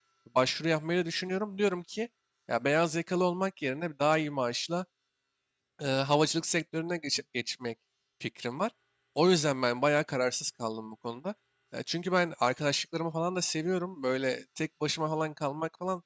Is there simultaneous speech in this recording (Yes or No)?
No